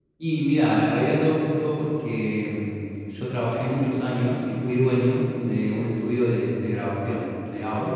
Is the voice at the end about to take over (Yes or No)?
No